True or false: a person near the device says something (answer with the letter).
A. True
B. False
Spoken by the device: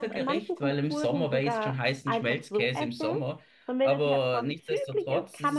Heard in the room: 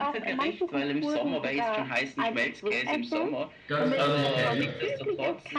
A